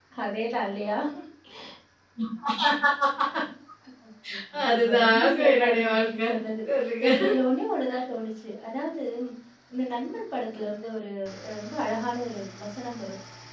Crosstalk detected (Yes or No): Yes